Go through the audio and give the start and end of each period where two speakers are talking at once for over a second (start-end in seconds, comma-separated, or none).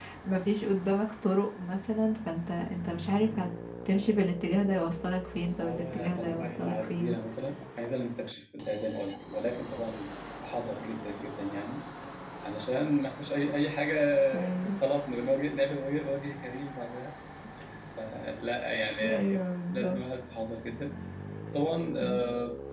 5.5-7.2